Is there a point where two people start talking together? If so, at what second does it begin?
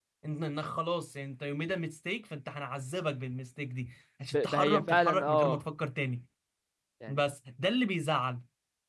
4.3 s

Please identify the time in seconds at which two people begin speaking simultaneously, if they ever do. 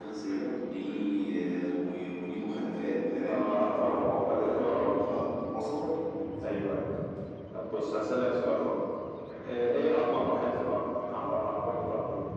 3.2 s

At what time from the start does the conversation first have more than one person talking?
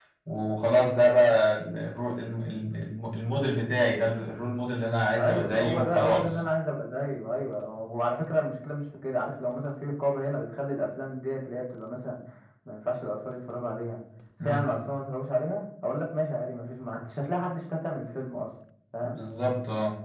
5.2 s

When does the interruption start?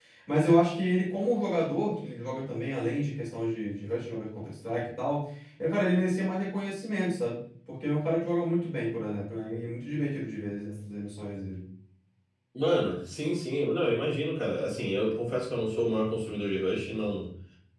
none

